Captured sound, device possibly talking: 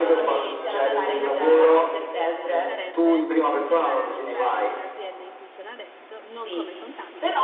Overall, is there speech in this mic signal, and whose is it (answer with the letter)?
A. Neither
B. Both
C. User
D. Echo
B